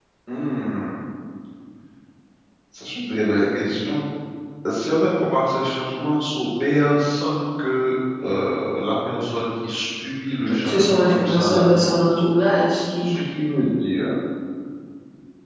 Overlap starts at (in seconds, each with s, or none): 10.4 s